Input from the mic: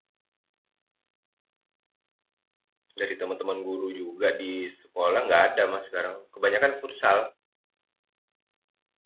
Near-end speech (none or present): present